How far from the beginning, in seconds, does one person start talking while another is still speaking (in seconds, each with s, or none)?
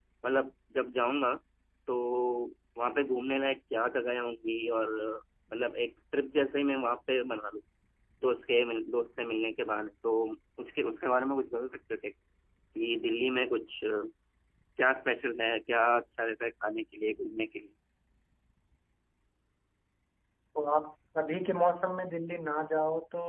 none